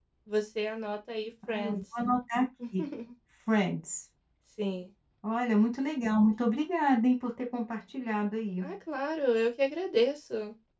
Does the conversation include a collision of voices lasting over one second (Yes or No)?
No